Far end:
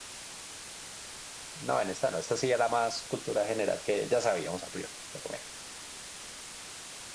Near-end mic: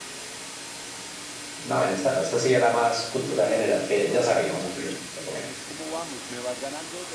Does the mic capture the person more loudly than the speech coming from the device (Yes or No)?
No